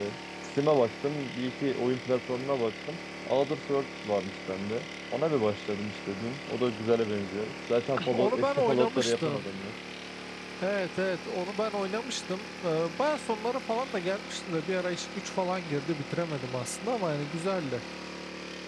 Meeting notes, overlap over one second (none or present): present